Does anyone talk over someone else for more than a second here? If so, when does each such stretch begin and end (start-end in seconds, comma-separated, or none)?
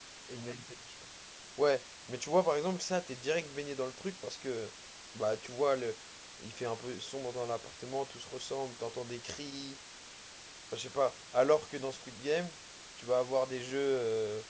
none